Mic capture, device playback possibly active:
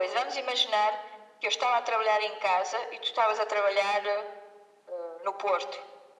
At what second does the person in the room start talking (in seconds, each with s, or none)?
none